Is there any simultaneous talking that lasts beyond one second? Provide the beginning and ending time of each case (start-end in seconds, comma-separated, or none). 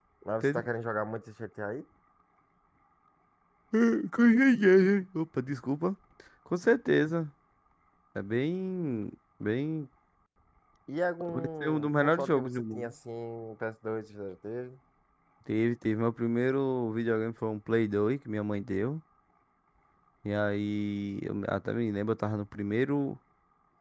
11.3-12.9